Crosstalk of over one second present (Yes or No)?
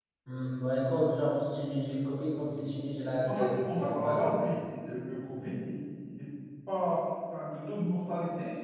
Yes